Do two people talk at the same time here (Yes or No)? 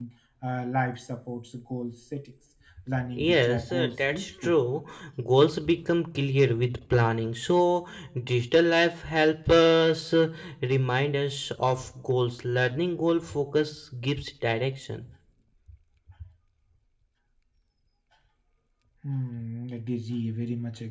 Yes